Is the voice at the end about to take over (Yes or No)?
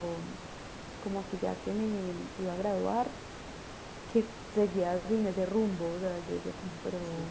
No